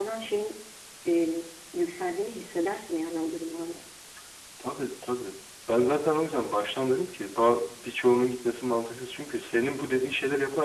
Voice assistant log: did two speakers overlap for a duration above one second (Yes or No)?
No